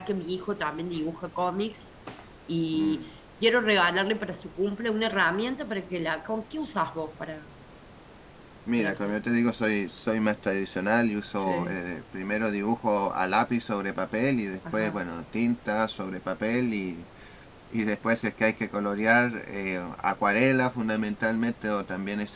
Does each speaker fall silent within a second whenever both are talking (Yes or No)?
Yes